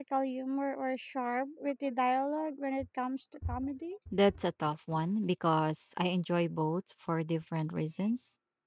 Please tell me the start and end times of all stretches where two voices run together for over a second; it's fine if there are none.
none

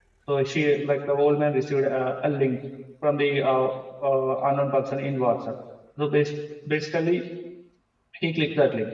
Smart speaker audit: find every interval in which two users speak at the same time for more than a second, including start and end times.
none

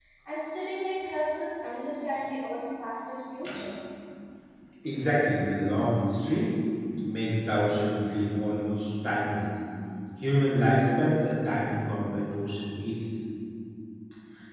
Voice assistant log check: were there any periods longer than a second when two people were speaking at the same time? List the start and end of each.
none

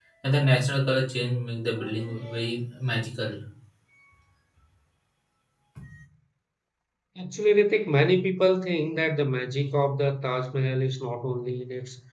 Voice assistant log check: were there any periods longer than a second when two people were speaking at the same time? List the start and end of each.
none

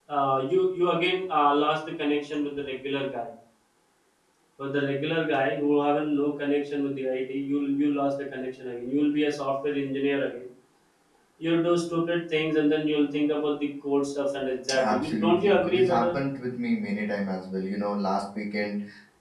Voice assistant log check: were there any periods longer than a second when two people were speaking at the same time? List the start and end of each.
14.8-16.1

